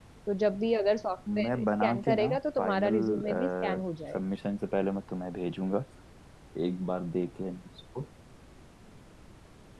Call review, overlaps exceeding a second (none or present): present